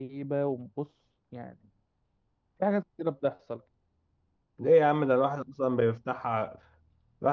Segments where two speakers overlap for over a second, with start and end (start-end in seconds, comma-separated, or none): none